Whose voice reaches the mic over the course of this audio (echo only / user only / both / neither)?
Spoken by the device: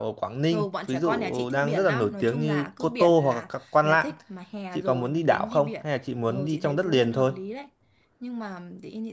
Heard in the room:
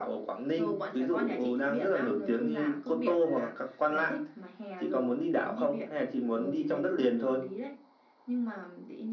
echo only